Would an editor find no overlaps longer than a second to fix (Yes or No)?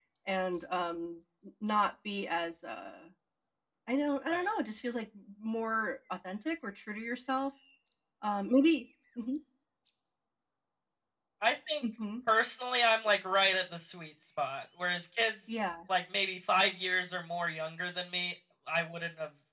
Yes